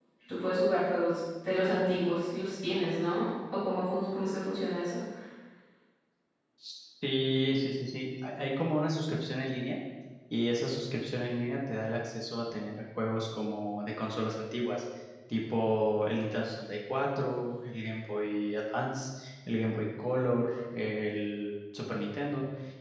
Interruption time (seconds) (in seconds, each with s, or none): none